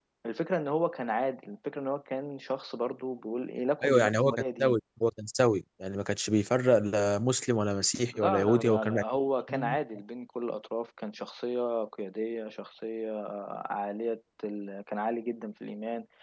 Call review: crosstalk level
present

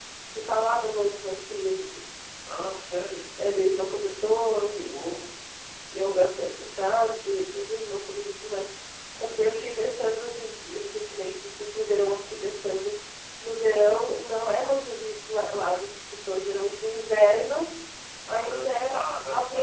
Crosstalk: present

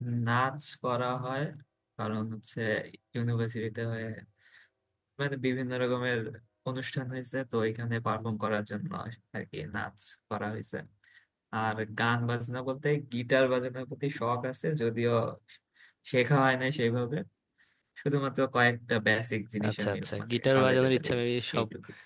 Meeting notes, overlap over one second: present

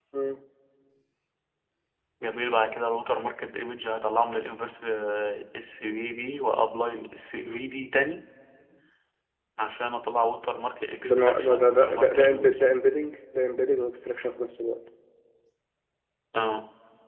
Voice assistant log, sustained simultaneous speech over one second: present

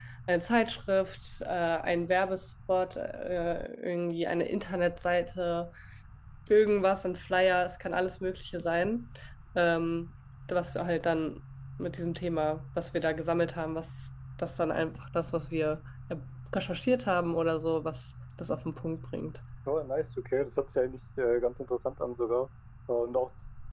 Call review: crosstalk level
none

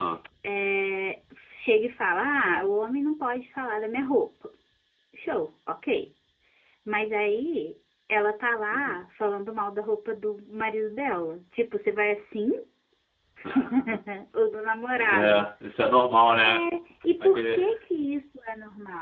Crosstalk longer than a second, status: none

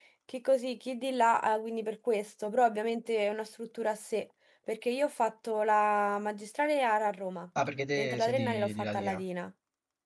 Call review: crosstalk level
present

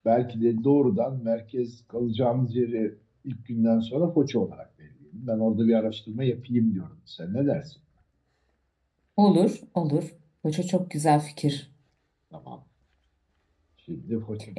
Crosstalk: none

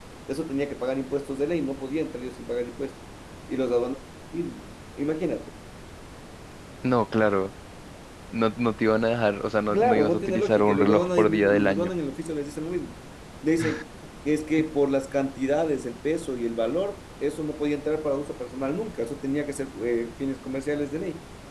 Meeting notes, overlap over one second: present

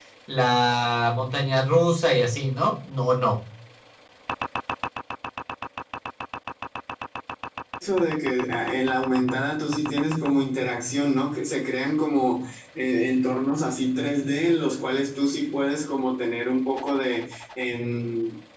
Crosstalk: none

